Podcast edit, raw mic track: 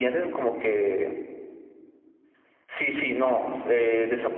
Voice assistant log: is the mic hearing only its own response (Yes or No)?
Yes